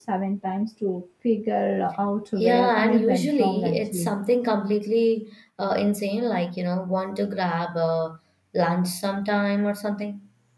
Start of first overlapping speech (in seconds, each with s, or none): 2.4 s